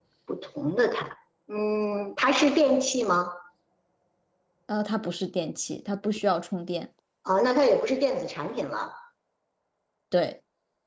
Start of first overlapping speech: none

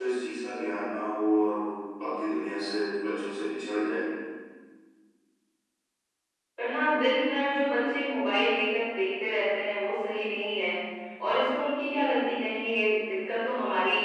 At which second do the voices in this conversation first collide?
none

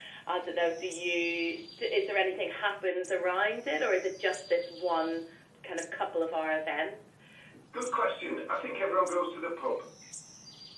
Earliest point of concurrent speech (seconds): none

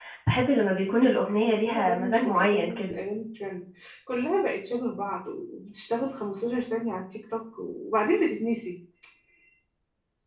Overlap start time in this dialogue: 0.9 s

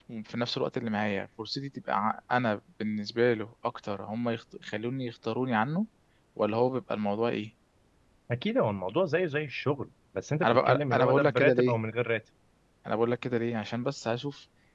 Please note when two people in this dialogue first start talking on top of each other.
10.4 s

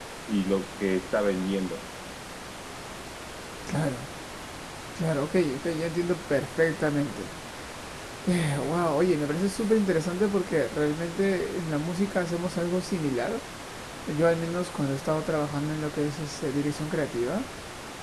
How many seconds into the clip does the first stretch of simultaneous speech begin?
none

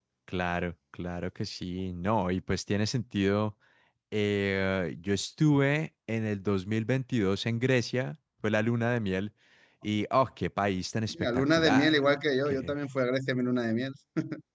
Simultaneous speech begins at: 11.1 s

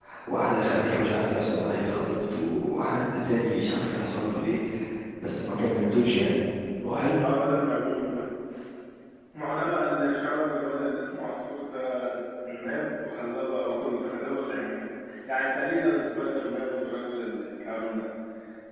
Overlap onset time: none

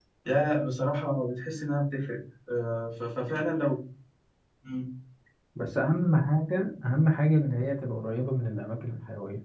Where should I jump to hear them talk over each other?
none

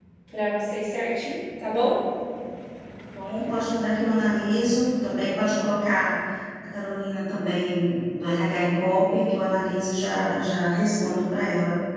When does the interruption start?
none

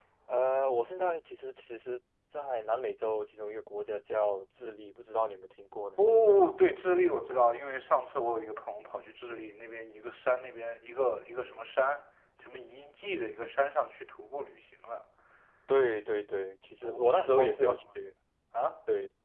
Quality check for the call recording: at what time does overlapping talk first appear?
16.8 s

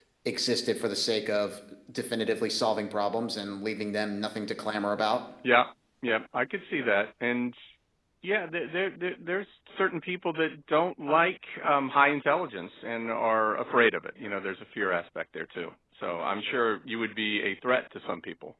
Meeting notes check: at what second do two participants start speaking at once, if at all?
none

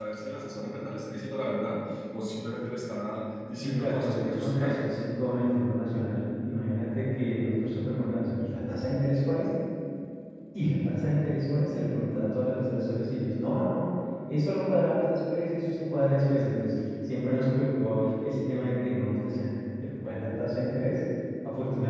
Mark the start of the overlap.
3.6 s

